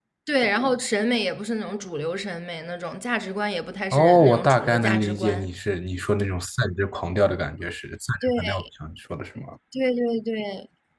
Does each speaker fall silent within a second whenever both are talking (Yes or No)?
No